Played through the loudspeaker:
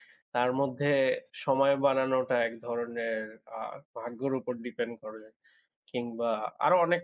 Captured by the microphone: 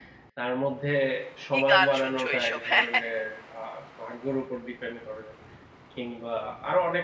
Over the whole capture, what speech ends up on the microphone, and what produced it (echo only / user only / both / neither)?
both